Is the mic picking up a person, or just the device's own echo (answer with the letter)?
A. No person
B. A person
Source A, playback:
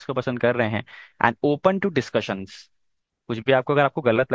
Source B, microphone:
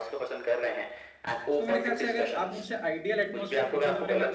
B